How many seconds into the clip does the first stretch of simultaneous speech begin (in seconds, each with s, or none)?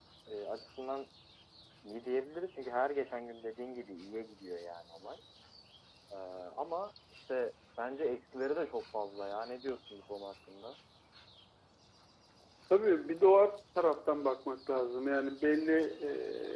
none